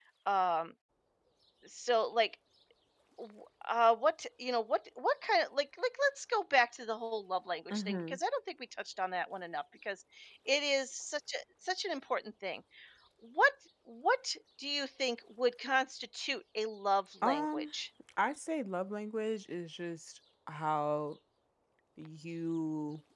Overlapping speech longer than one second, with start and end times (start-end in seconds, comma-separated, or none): none